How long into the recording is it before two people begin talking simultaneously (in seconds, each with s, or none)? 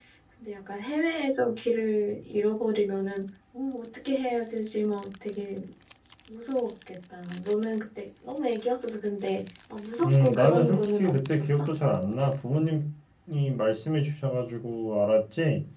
10.0 s